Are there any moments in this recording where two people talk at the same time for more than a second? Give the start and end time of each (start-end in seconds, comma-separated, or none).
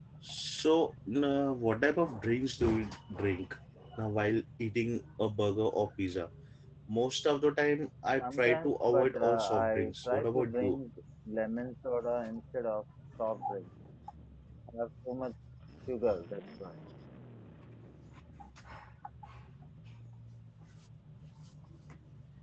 8.2-10.8